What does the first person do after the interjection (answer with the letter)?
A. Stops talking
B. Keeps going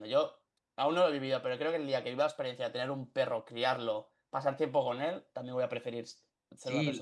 A